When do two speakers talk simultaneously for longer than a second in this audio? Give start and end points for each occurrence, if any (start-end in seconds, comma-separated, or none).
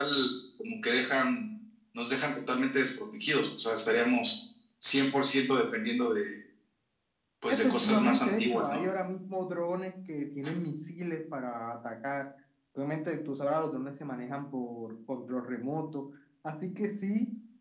7.5-8.8